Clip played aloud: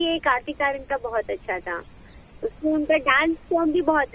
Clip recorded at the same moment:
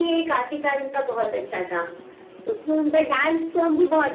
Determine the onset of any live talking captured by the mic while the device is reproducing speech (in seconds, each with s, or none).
none